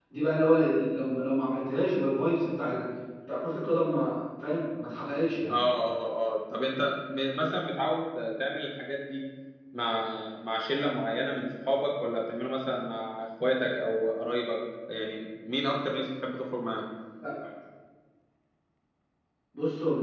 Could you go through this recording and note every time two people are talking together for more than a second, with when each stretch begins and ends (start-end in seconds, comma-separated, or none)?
none